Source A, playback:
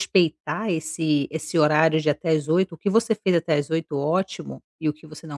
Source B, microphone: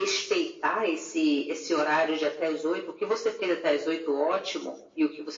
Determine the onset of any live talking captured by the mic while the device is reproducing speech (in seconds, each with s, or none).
none